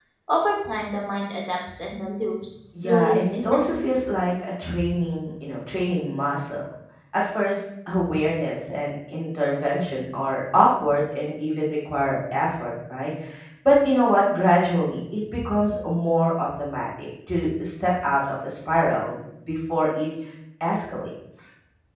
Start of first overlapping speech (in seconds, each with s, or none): 2.8 s